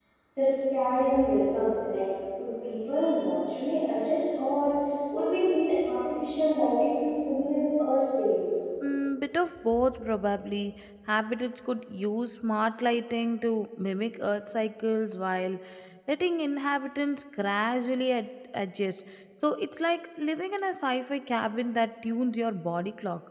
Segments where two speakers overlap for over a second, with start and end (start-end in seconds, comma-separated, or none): none